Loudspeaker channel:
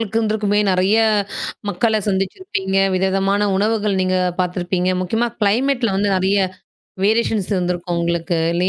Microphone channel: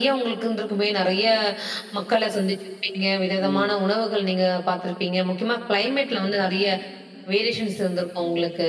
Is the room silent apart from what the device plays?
No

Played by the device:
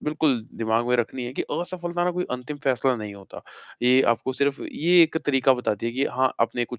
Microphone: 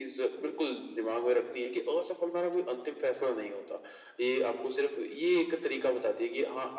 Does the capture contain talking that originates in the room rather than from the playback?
No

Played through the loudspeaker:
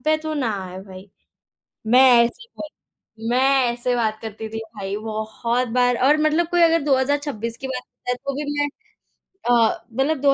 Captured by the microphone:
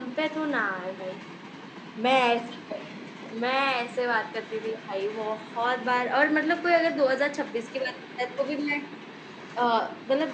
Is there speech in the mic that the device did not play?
No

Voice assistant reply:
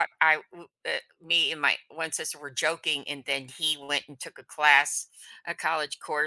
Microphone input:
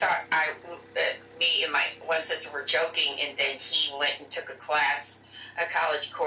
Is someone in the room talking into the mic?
No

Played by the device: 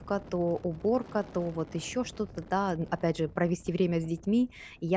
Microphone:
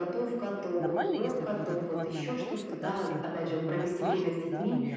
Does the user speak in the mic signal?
Yes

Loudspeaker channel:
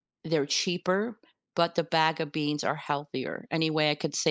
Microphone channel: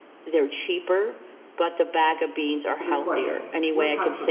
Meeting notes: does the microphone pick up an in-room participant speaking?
Yes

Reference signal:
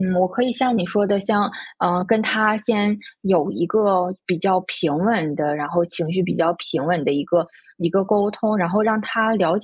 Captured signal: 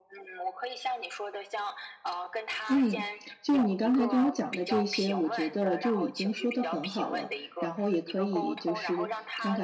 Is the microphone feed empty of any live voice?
No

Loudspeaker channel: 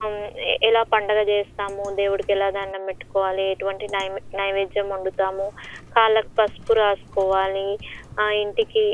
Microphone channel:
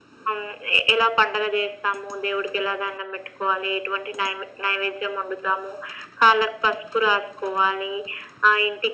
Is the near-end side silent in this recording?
Yes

